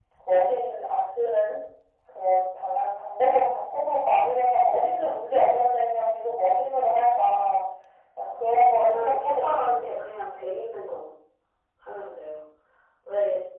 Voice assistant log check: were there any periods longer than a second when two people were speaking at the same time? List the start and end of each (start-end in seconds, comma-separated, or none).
8.7-10.1